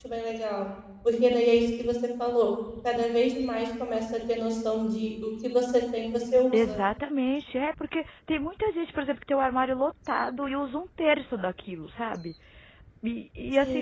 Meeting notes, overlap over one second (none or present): none